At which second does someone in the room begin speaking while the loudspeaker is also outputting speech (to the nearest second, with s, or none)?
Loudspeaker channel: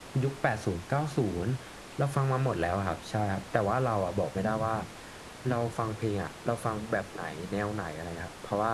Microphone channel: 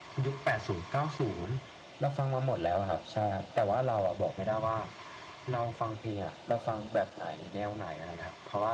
none